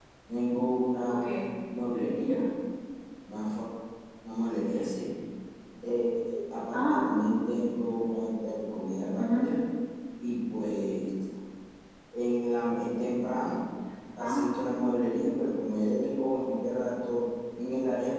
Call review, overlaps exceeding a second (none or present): none